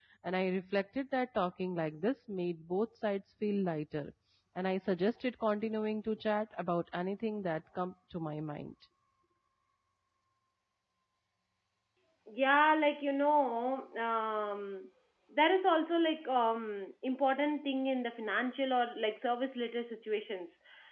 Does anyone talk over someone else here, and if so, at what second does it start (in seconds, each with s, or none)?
none